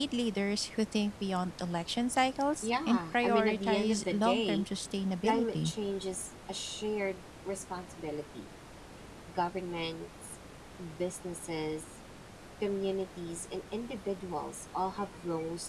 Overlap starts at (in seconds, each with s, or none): 2.6 s